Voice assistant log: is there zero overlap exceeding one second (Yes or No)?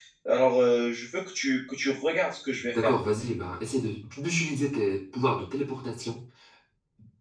Yes